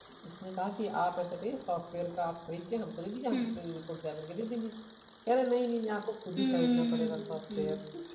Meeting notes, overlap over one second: present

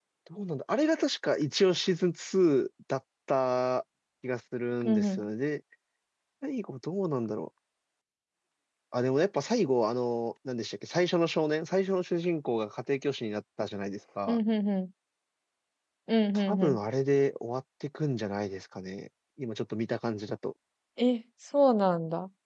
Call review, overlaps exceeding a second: none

